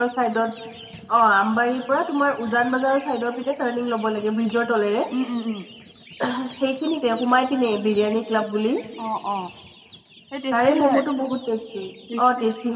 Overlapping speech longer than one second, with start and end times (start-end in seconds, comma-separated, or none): none